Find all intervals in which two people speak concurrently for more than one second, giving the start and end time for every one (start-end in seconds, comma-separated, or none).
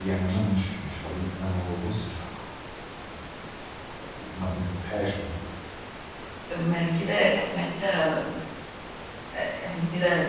none